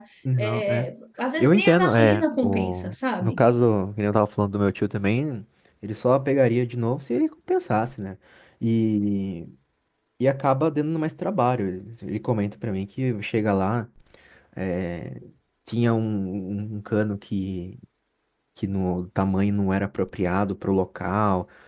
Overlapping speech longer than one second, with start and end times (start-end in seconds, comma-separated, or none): 1.4-3.4